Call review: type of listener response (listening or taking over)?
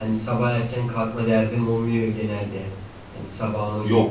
listening